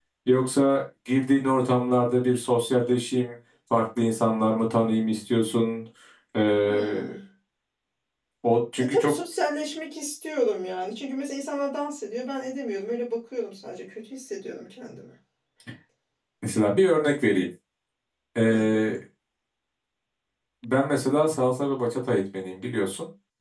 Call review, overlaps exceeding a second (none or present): none